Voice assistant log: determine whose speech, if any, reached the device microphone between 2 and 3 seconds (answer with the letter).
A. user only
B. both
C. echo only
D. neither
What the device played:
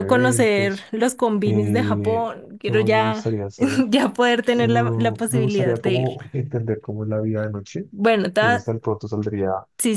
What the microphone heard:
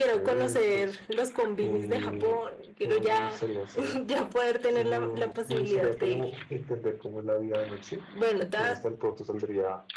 C